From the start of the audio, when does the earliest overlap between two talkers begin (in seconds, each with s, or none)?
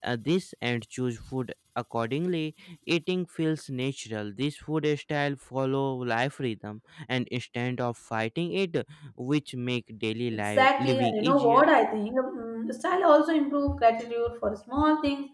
10.3 s